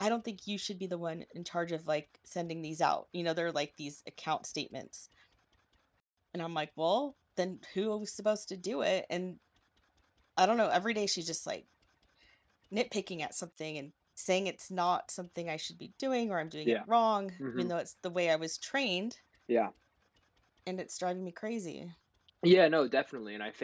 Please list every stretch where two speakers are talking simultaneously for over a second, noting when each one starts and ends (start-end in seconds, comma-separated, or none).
none